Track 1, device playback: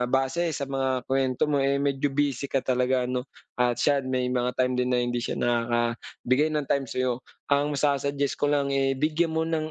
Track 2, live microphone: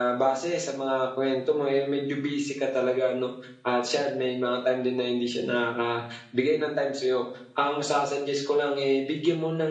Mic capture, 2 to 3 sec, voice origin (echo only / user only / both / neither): echo only